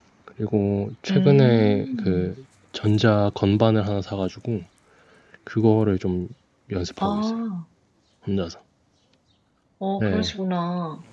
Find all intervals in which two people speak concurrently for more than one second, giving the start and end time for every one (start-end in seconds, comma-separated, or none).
1.1-2.3